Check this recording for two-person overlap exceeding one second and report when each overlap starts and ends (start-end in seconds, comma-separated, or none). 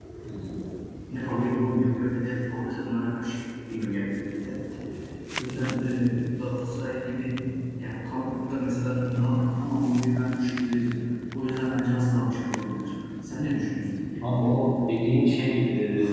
none